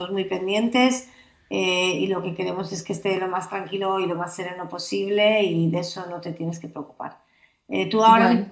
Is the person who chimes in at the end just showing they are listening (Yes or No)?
Yes